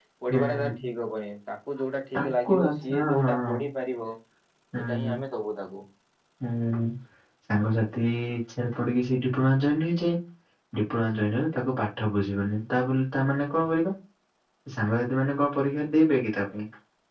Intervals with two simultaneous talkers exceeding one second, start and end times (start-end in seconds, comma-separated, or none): 2.1-3.4